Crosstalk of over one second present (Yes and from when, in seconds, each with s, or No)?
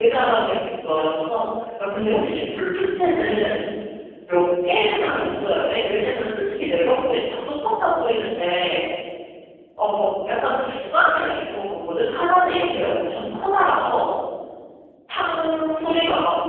No